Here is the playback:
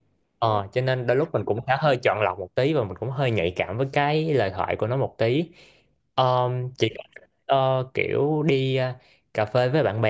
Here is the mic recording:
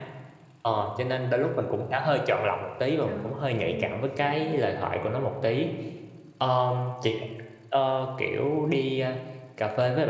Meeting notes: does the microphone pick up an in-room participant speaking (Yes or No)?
Yes